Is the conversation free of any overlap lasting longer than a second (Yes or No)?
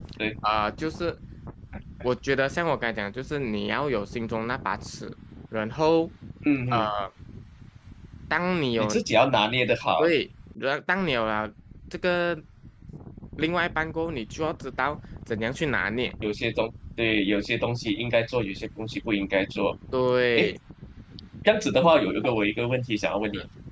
Yes